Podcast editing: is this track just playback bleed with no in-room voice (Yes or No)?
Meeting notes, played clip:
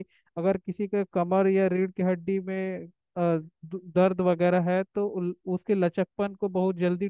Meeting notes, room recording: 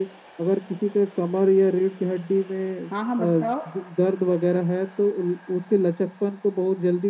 No